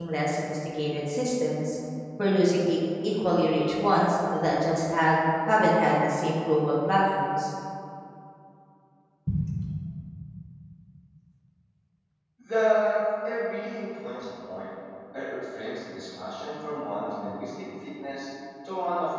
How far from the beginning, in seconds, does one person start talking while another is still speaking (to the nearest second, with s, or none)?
none